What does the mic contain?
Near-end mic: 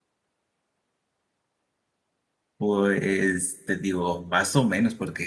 user only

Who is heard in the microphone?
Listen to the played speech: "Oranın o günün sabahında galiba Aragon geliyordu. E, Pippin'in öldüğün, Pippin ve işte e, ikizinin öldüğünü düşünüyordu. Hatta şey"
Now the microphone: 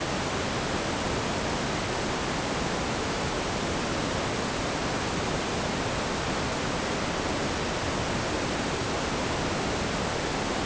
neither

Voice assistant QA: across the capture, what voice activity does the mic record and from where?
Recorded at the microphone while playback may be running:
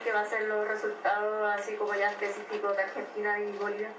echo only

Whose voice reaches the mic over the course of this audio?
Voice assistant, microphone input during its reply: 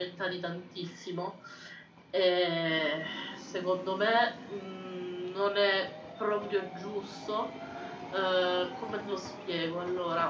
user only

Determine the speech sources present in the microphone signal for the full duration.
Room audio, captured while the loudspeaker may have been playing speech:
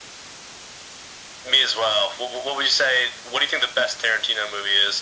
echo only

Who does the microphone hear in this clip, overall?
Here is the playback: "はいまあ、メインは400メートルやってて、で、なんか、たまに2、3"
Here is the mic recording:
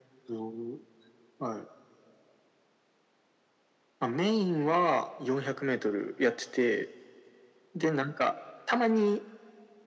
echo only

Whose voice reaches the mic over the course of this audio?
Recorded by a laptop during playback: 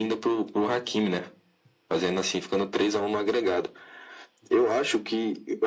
echo only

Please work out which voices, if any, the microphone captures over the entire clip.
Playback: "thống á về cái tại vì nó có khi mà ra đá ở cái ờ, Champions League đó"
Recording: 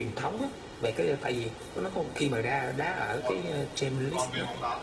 both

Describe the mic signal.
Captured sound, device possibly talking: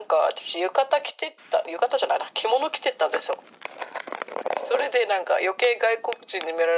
echo only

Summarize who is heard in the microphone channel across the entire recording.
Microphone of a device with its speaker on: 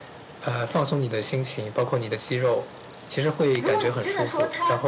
both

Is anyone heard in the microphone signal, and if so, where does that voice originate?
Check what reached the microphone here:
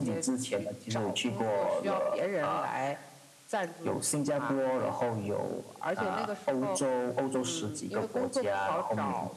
echo only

